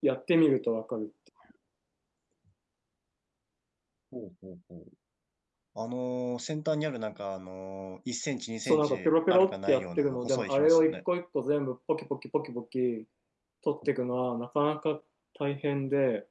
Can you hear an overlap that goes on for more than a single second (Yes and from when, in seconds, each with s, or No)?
Yes, from 8.6 s